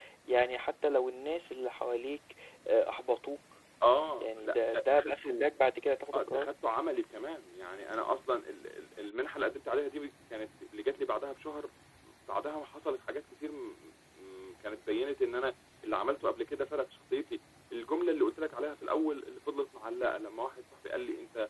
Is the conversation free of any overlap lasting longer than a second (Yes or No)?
No